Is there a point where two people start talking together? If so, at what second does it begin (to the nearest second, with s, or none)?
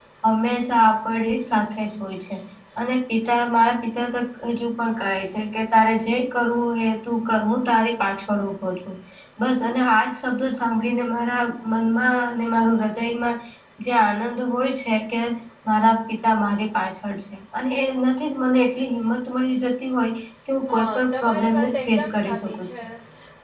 21 s